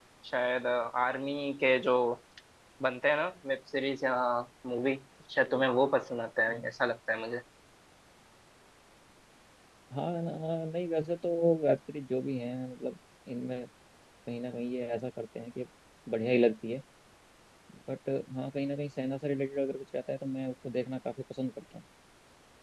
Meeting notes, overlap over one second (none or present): none